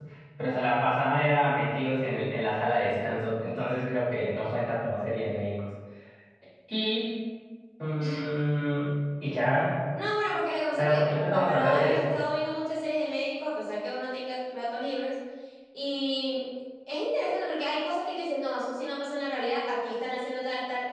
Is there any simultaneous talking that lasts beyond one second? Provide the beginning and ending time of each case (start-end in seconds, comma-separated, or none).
10.8-12.1